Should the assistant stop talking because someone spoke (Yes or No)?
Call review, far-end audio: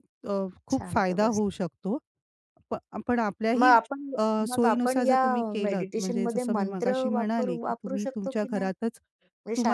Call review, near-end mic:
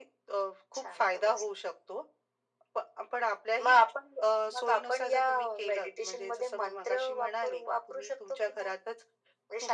No